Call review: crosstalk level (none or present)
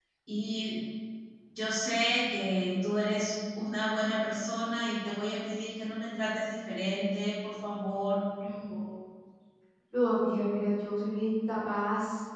none